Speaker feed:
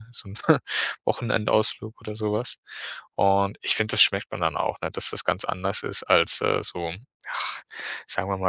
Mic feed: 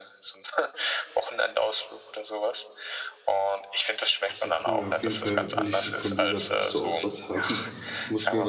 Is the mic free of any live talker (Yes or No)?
No